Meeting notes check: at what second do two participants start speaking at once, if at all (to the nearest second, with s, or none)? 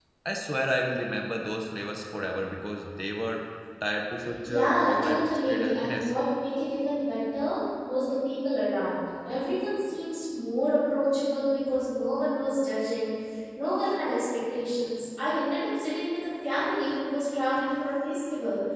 4 s